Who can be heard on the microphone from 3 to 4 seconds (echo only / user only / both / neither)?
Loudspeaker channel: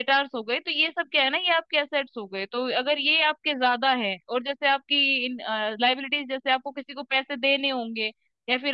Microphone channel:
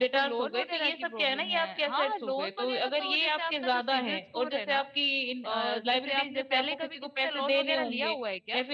both